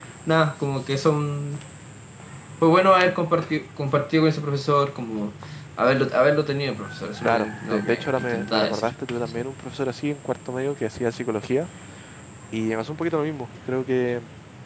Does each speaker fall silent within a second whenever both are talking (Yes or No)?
No